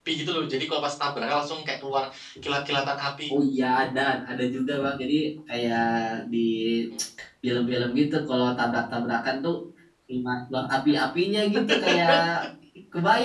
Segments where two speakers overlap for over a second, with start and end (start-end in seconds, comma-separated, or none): none